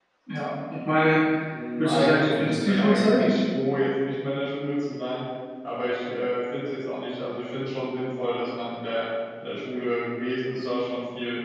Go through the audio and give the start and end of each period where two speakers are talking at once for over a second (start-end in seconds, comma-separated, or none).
1.8-3.2